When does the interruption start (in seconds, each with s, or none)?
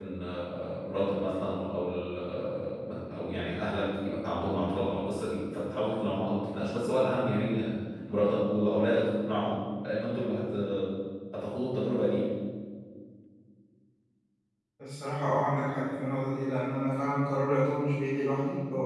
none